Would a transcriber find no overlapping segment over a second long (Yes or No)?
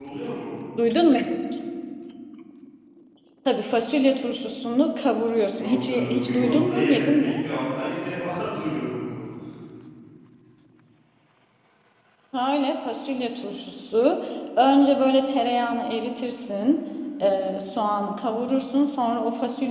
No